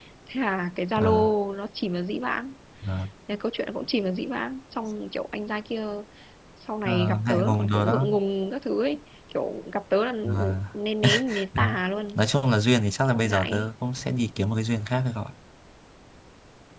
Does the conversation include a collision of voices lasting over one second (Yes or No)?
Yes